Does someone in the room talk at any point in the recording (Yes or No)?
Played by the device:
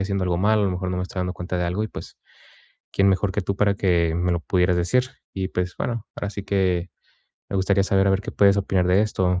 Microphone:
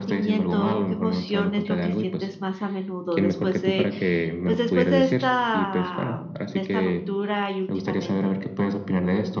Yes